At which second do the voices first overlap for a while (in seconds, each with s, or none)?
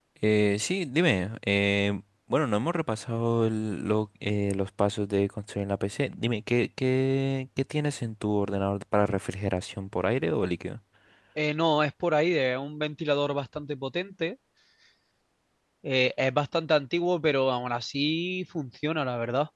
none